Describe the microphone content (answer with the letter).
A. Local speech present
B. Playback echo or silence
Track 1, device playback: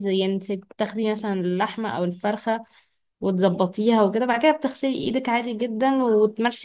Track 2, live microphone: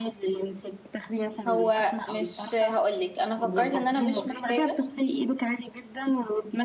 A